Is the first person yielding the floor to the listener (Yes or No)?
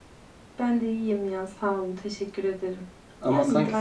Yes